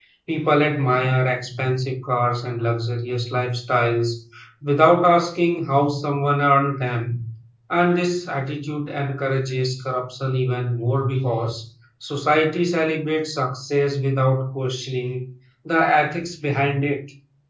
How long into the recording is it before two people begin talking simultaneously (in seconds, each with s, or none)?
none